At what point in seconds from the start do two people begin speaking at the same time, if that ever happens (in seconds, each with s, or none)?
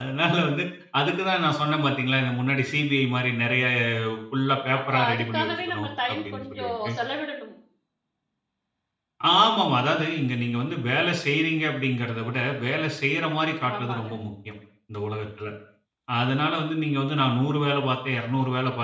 4.9 s